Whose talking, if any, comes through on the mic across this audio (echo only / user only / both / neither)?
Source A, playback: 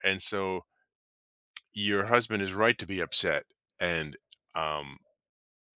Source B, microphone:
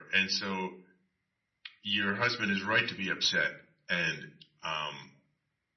echo only